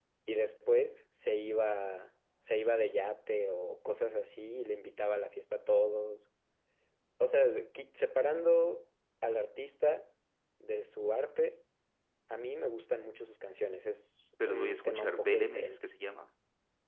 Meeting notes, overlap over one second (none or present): present